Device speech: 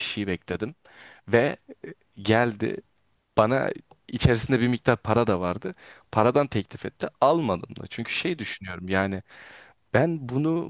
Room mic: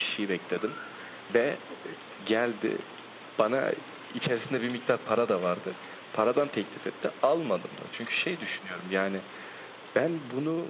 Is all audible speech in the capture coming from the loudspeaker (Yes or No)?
Yes